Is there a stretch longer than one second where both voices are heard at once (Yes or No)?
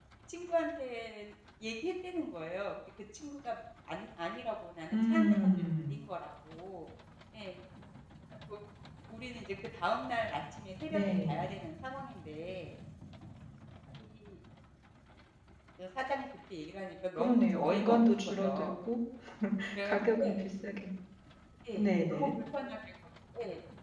Yes